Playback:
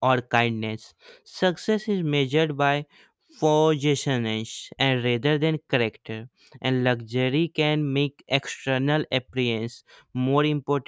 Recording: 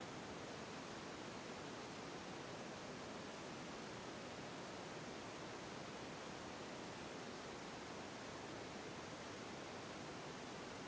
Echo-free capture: Yes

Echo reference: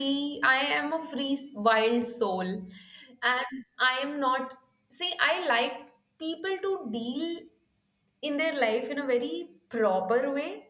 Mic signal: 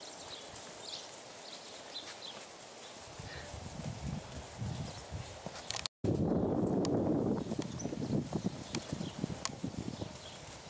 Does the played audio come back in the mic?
No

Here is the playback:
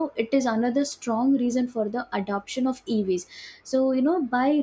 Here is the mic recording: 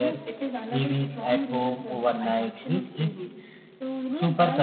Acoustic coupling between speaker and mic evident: Yes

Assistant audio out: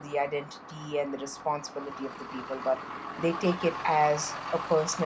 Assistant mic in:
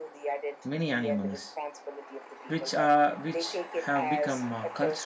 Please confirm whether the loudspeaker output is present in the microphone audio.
Yes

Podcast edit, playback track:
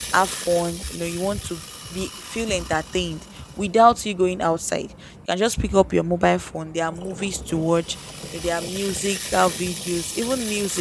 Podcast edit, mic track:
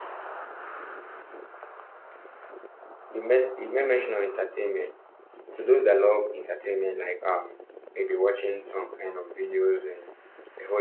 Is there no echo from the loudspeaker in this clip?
Yes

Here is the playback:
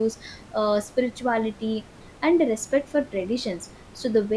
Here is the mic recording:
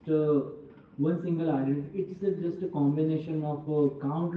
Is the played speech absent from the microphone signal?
Yes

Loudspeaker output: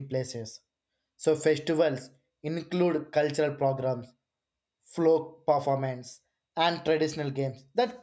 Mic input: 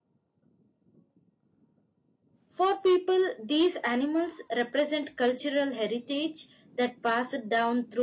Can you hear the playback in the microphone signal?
No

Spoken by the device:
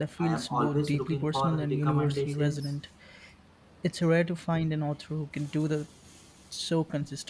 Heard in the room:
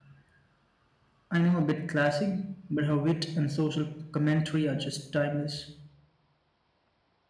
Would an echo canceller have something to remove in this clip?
No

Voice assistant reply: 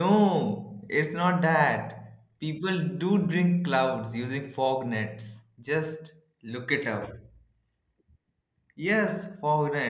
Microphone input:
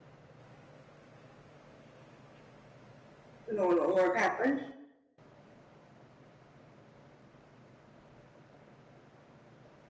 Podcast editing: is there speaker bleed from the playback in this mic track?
No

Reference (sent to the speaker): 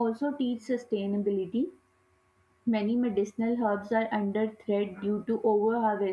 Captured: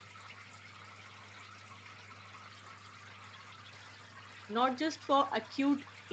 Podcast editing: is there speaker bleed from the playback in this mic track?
No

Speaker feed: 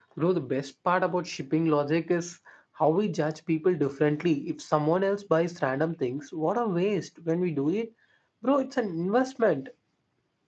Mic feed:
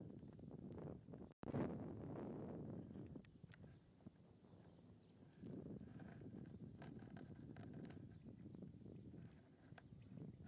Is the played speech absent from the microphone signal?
Yes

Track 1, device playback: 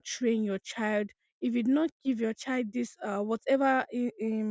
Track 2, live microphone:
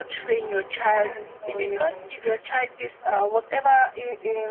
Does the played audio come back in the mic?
Yes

